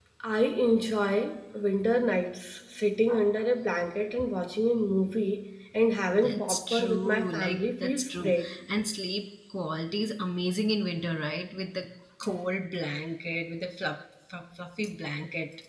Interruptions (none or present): present